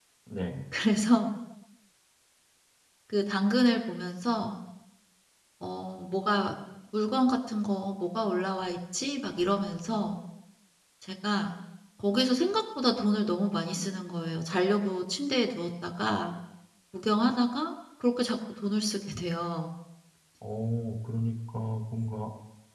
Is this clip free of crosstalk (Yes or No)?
Yes